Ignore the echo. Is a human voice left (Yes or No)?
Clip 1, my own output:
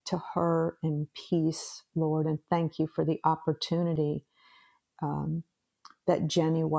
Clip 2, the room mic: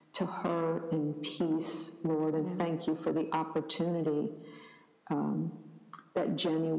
Yes